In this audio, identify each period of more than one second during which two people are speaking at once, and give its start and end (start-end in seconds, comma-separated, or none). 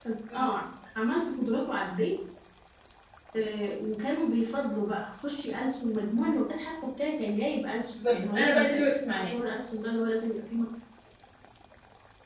8.1-9.4